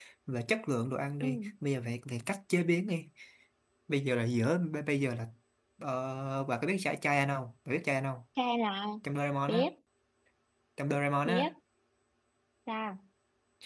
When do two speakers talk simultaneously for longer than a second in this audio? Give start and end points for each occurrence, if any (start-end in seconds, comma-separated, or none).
none